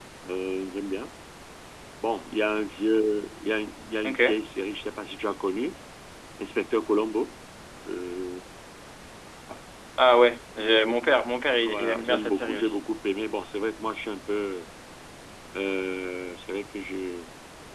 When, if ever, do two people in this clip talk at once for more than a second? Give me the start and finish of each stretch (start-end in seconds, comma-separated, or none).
11.6-12.8